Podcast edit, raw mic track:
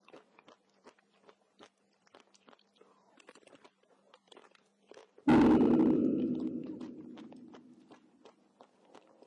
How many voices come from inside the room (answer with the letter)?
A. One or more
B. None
A